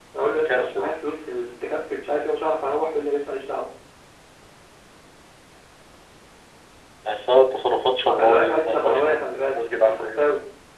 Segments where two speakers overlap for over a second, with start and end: 8.0-10.2

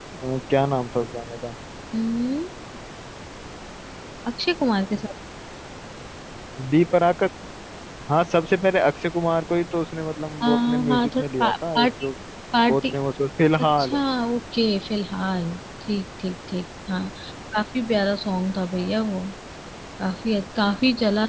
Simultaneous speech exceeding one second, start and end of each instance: 10.4-11.9

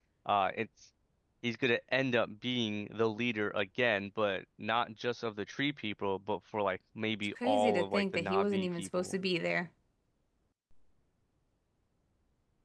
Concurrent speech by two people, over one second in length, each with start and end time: 7.4-9.2

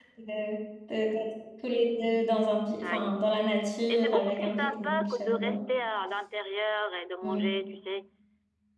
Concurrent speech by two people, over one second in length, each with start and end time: 3.9-5.6

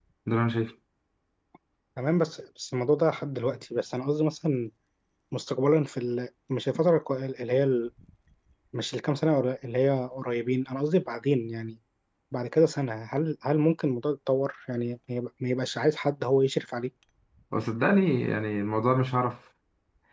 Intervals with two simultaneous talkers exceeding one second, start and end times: none

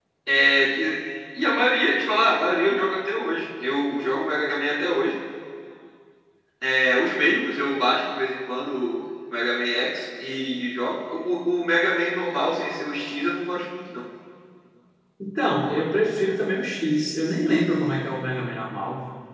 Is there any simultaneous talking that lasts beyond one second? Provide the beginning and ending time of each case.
none

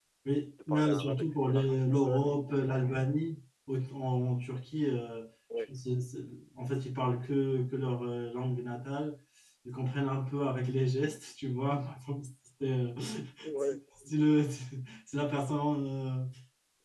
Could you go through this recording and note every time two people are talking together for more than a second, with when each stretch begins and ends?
0.7-3.0

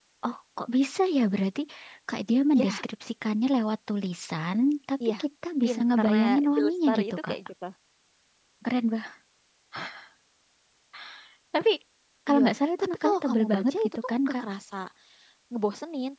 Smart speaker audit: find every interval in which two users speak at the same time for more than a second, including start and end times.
5.6-7.4, 12.8-14.4

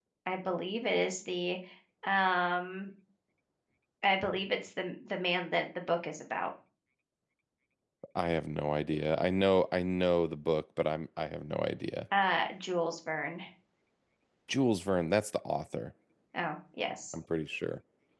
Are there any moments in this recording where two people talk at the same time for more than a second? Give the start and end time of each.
none

